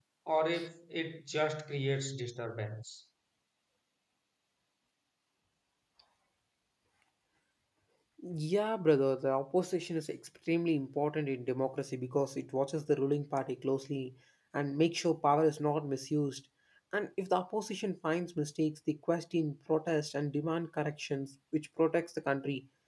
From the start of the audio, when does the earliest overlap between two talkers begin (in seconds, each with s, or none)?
none